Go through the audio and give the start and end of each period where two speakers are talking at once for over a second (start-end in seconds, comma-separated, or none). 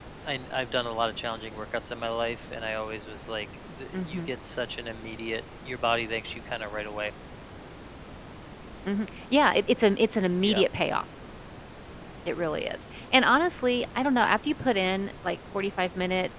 none